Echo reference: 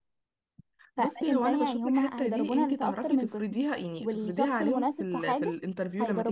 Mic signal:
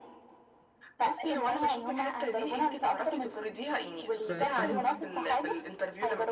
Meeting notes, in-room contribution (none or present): present